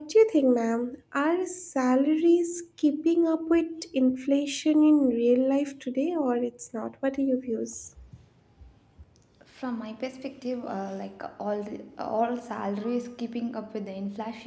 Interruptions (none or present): none